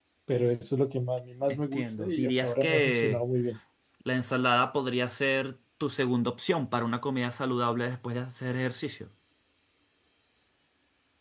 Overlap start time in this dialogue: 1.5 s

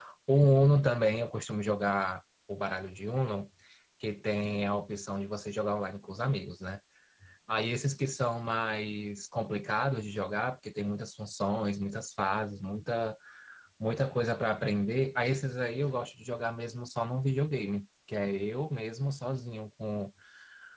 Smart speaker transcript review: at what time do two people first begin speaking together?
none

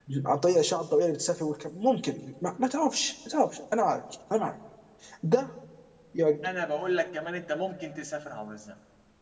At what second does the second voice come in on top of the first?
none

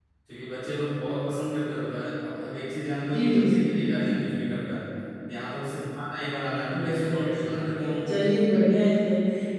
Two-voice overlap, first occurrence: 3.1 s

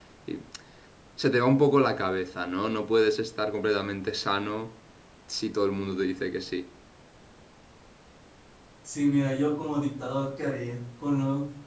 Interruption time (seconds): none

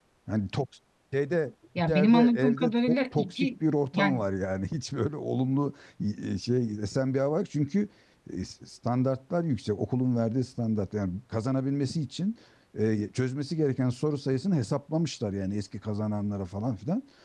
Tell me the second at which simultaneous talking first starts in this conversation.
1.8 s

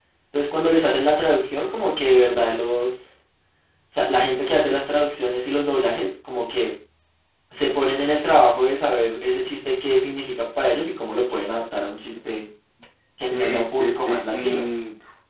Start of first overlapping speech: 13.3 s

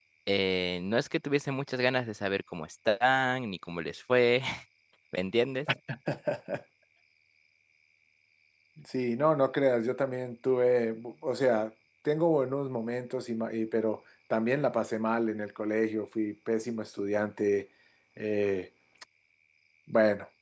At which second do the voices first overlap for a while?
none

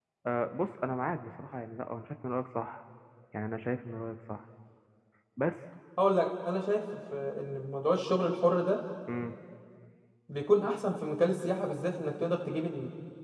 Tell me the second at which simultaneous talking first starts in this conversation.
none

